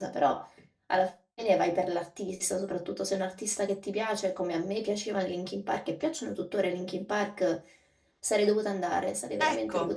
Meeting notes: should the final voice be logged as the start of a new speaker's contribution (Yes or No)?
Yes